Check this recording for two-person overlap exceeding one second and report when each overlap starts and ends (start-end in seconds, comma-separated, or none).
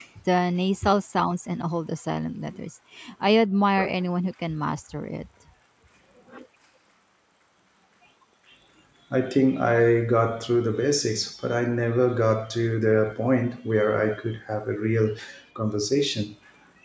none